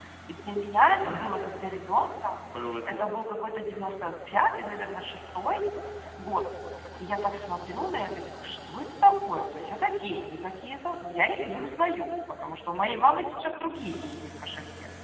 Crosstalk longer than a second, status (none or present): none